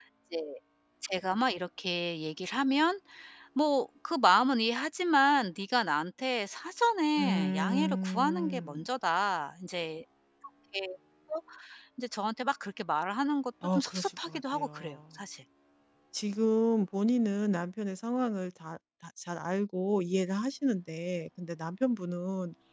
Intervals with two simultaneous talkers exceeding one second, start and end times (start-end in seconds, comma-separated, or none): 7.2-8.9, 13.8-14.9